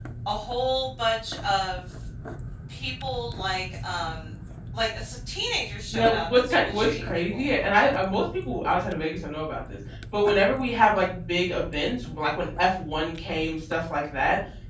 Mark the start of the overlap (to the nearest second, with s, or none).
6 s